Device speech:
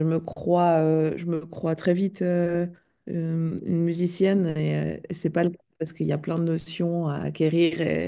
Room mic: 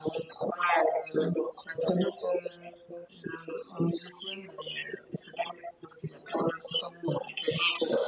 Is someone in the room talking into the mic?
No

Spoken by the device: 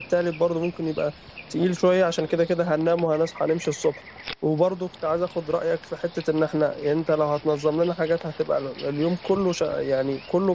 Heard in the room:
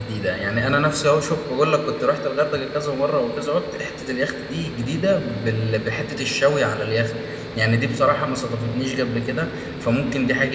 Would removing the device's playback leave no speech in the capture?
No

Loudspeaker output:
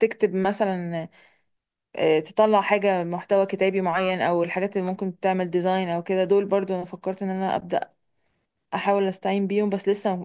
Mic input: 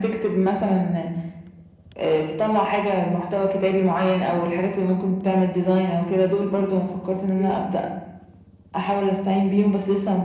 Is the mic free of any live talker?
No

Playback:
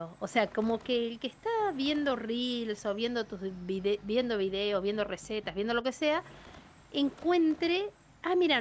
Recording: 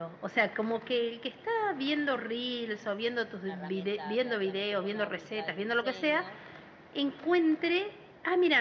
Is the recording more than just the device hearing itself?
Yes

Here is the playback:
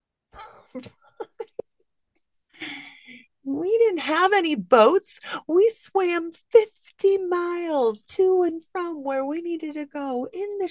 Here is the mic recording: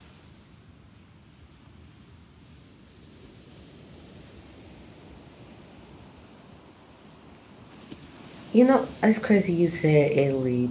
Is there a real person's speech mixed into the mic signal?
Yes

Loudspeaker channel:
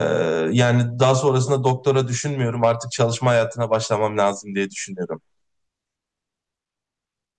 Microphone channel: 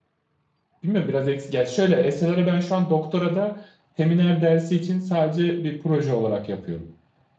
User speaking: Yes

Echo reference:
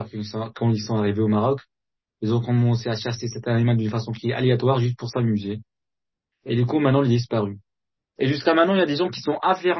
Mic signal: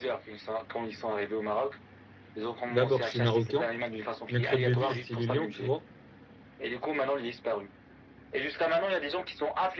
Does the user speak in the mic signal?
Yes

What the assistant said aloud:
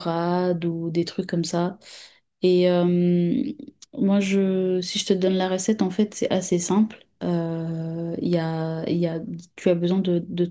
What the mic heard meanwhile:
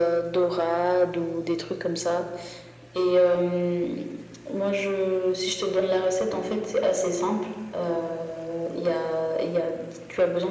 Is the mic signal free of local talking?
Yes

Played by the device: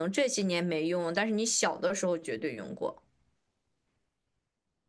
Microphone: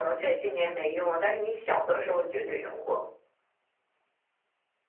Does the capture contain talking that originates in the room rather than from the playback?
No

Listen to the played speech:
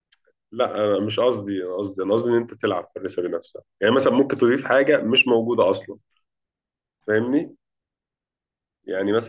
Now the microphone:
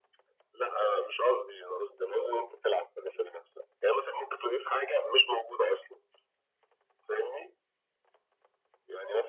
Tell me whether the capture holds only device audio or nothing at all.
Yes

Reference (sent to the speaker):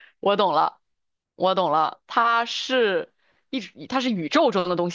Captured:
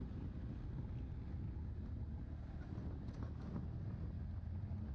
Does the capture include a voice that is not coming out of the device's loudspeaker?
No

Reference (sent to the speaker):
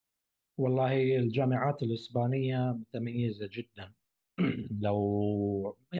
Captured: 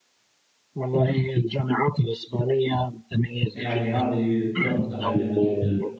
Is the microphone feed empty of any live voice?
No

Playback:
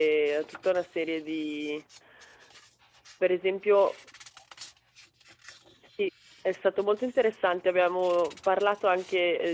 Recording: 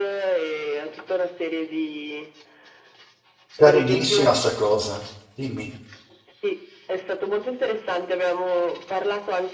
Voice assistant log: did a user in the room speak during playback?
Yes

